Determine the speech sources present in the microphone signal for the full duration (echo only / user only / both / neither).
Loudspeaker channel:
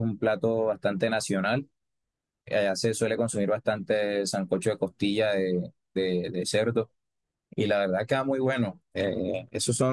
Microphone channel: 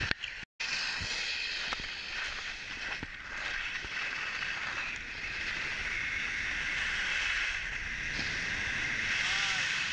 neither